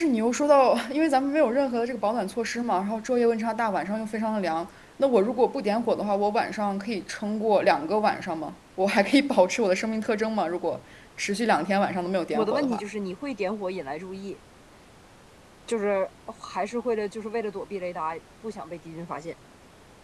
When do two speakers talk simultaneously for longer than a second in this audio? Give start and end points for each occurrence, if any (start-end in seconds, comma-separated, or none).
none